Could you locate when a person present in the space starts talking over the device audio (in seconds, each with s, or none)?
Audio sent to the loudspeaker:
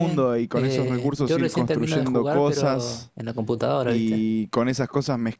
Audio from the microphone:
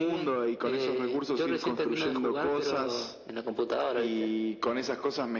none